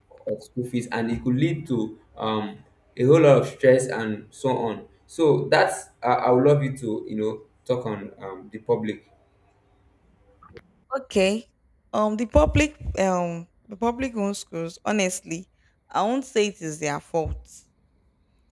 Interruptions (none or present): none